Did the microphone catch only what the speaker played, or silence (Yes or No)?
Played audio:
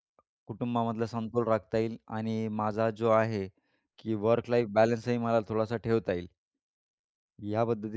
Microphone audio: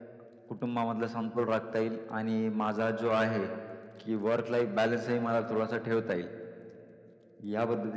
Yes